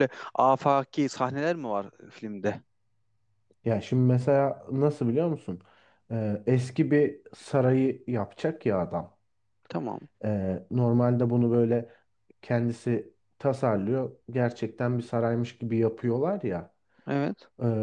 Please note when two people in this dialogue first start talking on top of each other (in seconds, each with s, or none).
none